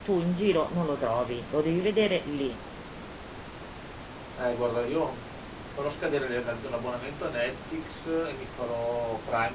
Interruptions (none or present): none